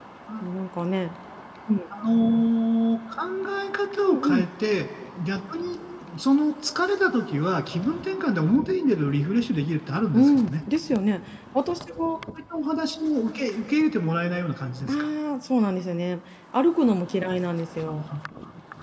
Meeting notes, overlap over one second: none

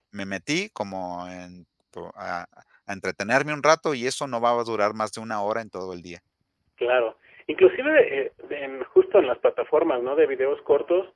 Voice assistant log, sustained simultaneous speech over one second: none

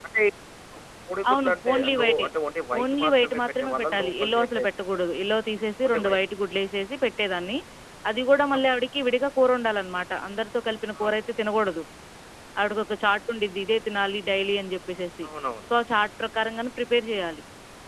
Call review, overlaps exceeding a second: present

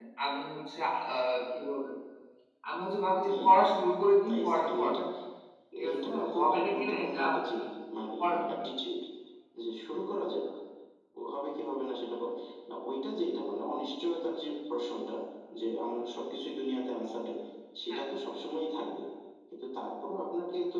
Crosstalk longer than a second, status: present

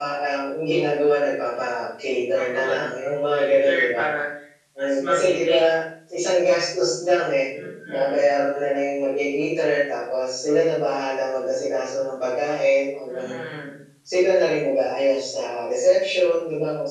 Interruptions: present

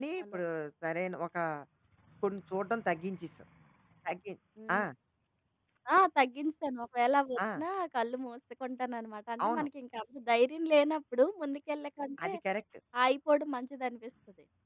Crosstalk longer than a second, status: none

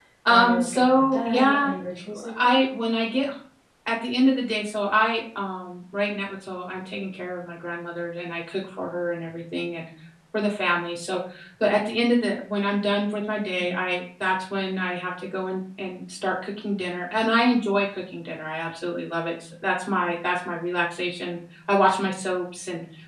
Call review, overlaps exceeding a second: present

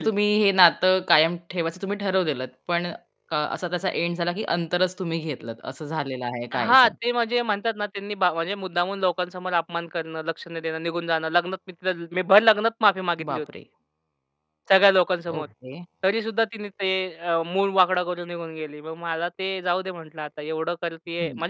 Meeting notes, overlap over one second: none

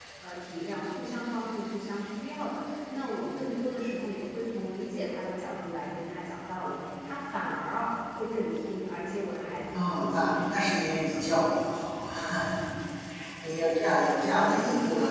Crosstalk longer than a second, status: present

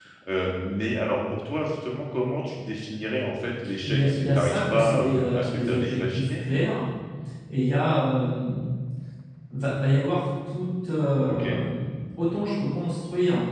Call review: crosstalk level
present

